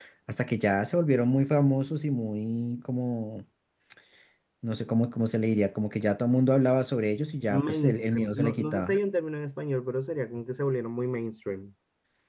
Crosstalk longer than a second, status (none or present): present